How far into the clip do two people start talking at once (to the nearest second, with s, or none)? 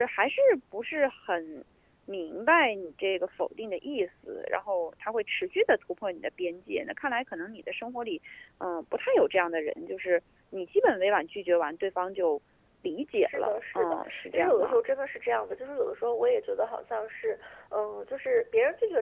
13 s